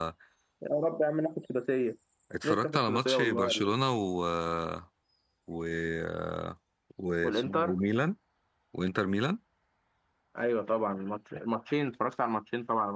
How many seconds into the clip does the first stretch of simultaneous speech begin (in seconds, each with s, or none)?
2.4 s